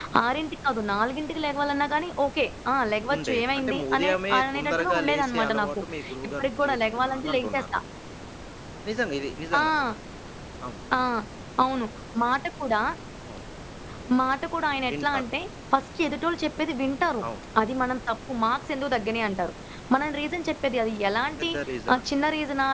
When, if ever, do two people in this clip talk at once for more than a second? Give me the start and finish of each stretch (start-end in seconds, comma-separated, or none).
3.1-5.8, 6.3-7.7